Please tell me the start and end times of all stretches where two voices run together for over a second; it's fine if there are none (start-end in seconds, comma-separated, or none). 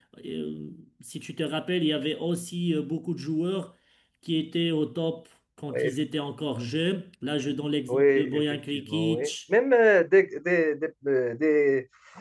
7.9-9.3